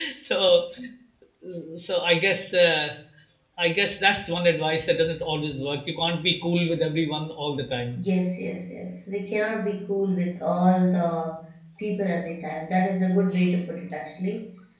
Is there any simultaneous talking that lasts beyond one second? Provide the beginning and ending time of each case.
none

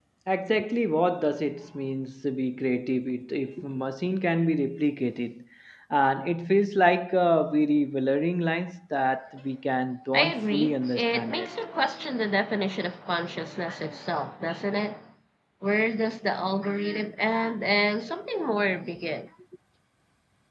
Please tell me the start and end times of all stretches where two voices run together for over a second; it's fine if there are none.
10.1-11.5

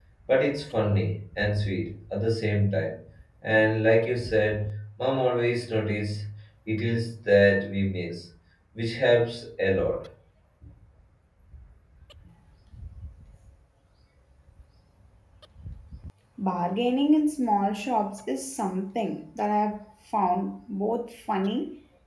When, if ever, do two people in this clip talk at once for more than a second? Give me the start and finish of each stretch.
none

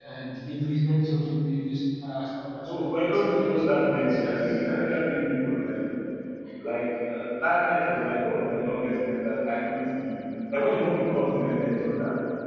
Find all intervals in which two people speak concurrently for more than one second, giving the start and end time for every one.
2.6-4.2

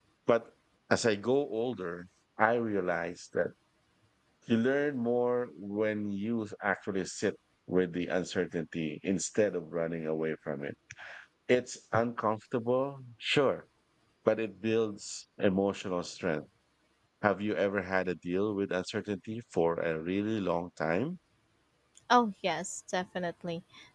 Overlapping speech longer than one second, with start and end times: none

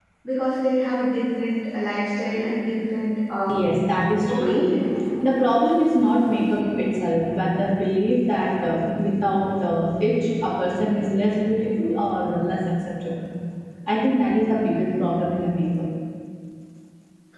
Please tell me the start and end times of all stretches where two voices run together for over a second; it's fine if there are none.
none

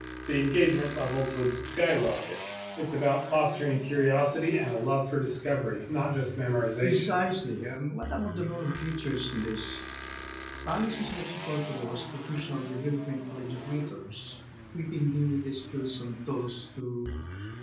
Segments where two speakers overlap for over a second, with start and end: none

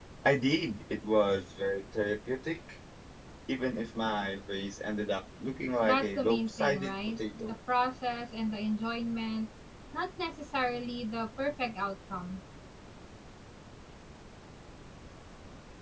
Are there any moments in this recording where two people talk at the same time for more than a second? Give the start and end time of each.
5.8-7.5

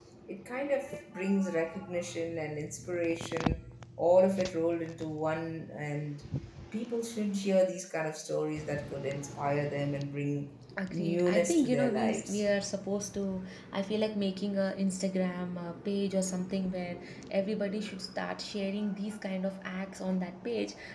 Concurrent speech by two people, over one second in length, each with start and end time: 10.9-12.4

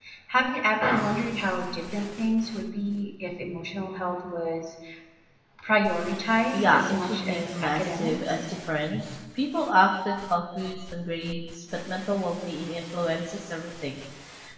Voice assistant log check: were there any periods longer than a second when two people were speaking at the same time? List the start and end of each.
6.5-8.3

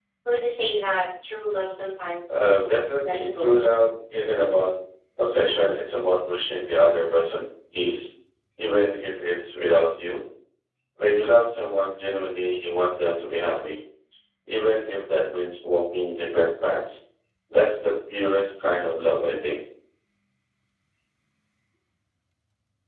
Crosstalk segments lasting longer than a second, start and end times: 2.3-3.6

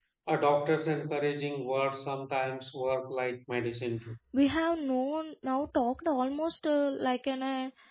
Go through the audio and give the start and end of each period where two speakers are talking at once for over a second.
none

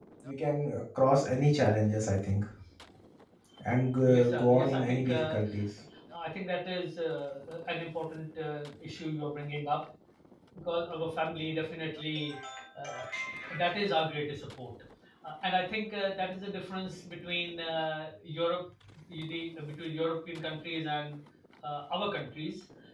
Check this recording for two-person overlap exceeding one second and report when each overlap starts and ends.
4.0-5.3

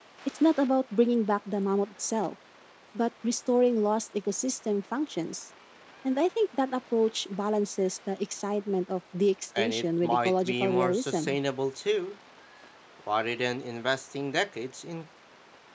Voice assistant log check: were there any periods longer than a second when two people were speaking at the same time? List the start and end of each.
9.6-11.3

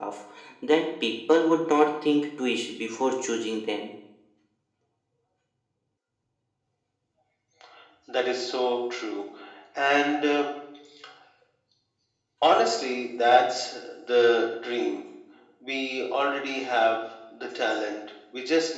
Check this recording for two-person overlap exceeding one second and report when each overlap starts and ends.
none

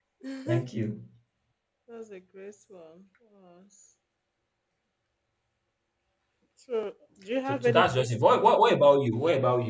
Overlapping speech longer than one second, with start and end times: 7.5-8.9

